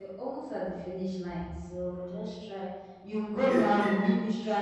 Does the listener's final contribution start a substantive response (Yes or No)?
No